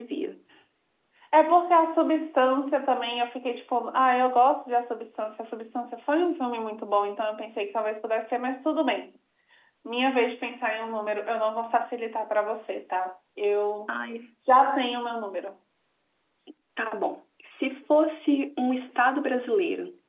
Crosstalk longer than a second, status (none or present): none